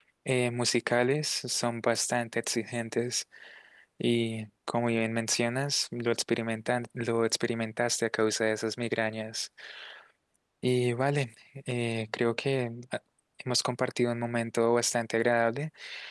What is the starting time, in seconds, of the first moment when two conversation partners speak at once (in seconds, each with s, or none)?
none